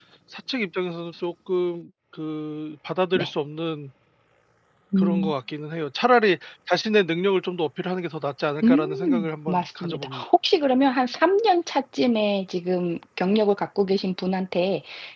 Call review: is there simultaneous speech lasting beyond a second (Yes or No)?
Yes